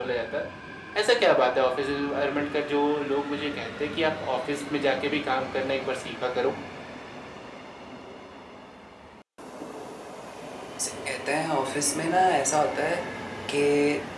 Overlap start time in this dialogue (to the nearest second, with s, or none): none